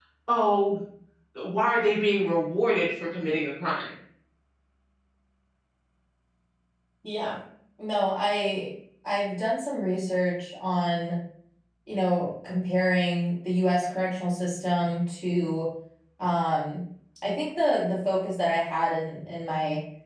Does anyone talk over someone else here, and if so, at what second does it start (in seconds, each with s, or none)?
none